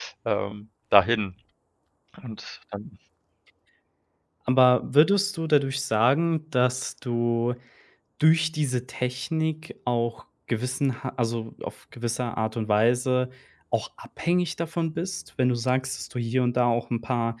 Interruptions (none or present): none